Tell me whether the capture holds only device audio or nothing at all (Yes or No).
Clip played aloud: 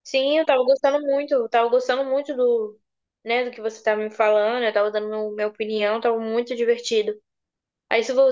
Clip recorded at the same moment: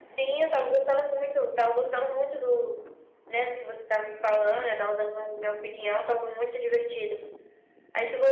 Yes